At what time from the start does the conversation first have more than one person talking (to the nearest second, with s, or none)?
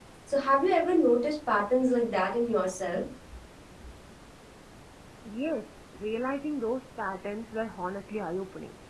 none